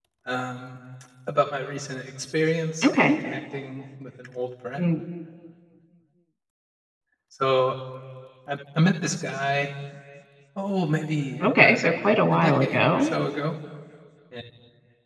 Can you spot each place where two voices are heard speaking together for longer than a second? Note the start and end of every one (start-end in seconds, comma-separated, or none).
11.4-13.1